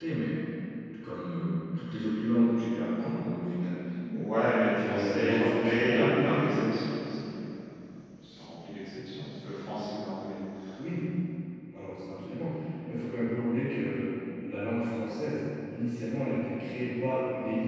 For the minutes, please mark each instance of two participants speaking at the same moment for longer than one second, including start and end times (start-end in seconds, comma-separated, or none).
4.7-6.7